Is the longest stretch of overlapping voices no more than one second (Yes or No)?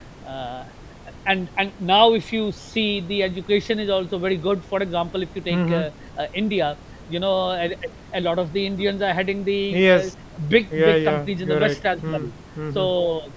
No